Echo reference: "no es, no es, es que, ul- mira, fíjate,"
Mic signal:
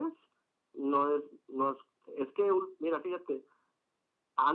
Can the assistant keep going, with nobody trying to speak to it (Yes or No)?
Yes